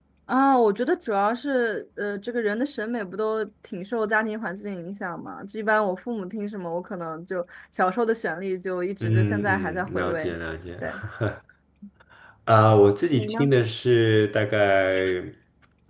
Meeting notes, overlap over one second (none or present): present